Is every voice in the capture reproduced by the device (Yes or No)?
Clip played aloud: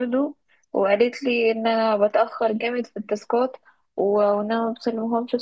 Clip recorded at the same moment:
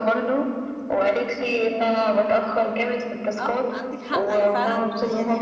No